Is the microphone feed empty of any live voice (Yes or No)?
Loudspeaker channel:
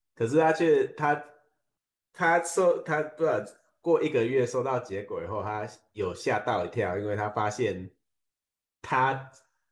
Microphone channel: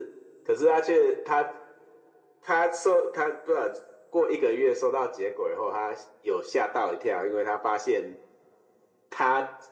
Yes